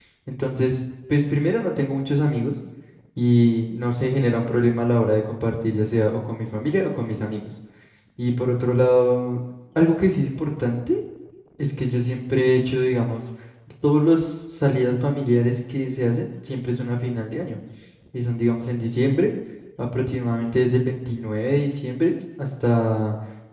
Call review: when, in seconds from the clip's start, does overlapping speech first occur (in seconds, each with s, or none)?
none